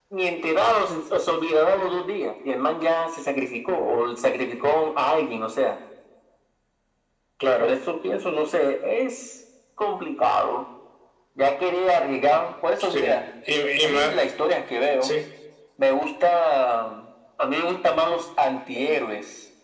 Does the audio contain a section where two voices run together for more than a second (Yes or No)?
No